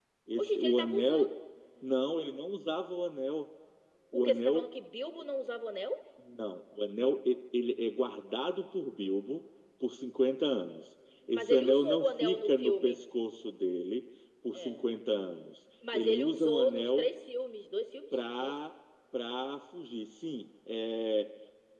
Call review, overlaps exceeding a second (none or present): present